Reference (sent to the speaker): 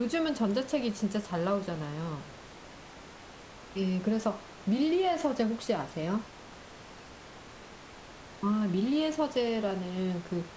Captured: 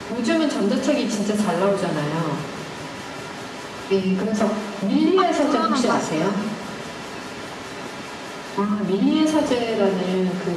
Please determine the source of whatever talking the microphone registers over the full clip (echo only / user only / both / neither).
both